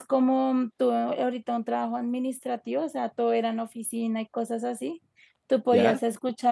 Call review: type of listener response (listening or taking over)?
listening